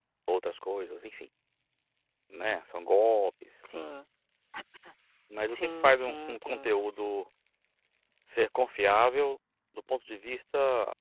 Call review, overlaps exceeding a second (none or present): present